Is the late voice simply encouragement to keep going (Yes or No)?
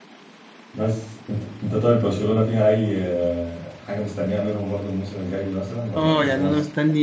No